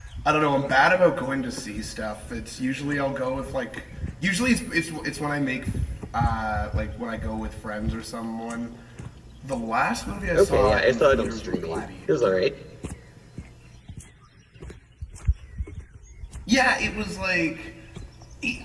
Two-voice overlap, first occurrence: 10.3 s

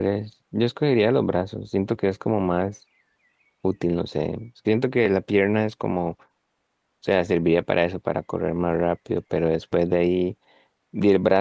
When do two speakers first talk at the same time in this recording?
none

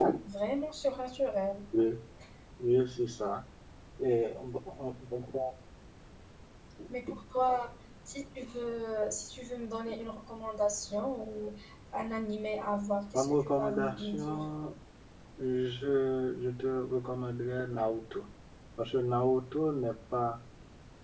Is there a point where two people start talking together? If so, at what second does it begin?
13.1 s

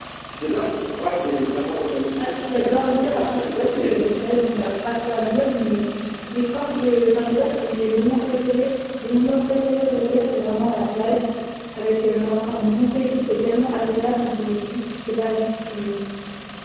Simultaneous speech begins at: 2.2 s

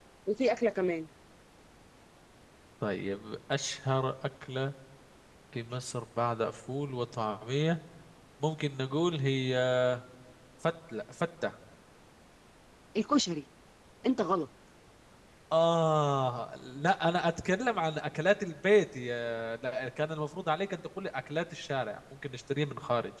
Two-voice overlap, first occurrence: none

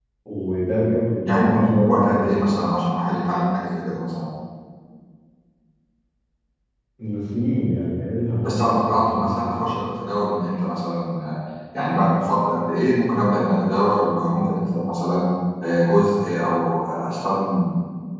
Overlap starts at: 1.2 s

